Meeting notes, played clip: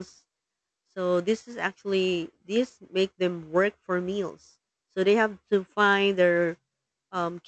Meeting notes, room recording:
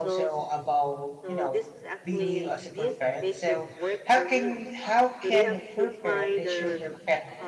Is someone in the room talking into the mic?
Yes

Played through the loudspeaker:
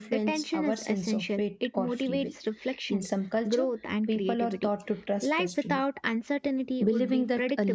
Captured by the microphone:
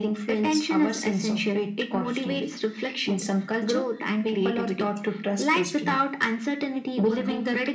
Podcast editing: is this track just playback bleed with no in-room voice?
Yes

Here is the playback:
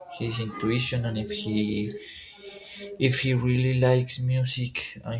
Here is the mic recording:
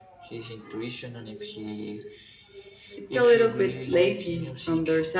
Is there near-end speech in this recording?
Yes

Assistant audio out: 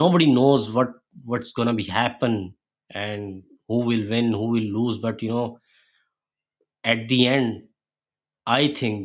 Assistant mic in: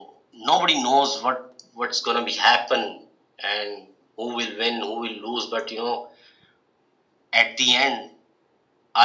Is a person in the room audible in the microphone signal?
No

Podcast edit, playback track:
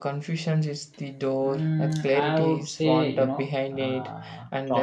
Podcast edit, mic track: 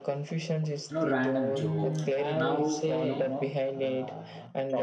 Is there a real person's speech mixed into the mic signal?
Yes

